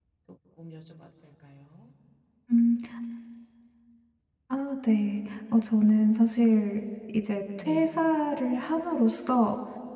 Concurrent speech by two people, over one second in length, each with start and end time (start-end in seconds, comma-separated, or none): none